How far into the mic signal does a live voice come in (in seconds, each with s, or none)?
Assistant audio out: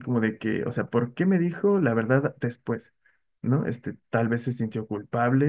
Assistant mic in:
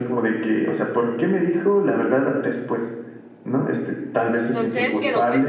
4.3 s